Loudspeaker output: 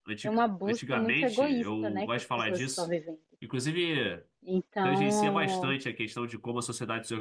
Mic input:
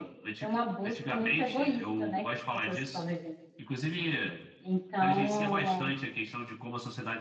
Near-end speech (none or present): none